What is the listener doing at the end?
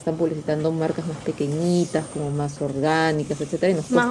taking over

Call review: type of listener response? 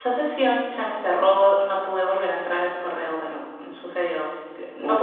listening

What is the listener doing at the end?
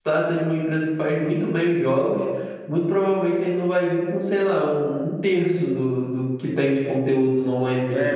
taking over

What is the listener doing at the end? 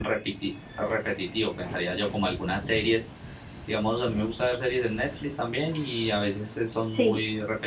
listening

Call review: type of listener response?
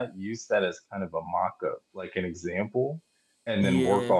listening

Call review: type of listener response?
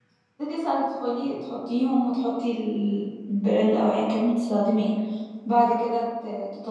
listening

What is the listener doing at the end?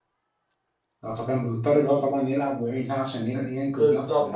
taking over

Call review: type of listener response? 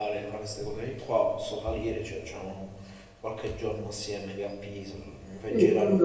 taking over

